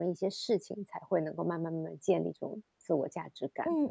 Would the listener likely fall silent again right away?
No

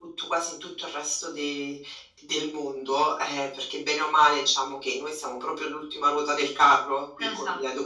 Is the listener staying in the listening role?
Yes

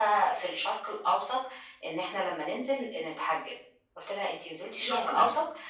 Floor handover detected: No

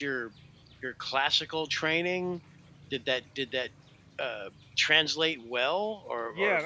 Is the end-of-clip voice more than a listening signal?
Yes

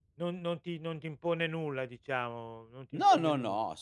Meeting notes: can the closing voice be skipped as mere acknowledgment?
No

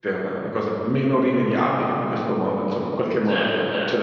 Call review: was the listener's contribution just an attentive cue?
No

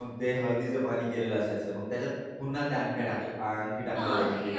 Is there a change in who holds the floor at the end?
Yes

